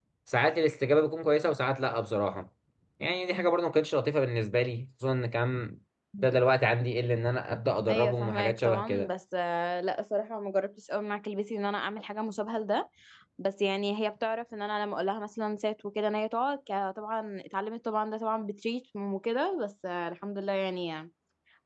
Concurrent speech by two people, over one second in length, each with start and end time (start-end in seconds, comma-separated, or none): 7.9-9.1